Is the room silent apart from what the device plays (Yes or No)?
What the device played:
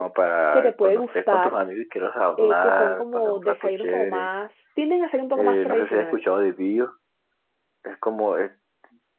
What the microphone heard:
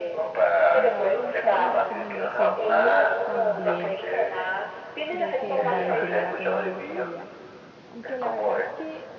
No